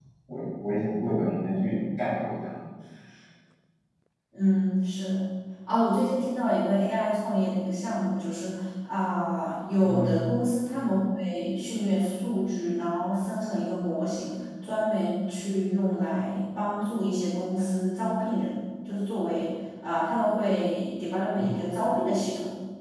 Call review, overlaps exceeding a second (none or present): none